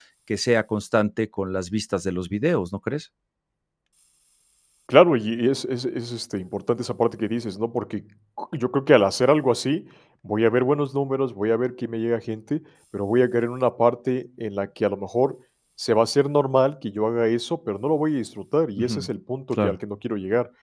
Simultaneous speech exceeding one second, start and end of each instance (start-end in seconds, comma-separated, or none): none